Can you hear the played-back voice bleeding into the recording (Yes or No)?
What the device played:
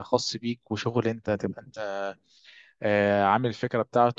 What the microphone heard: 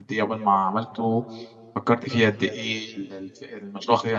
No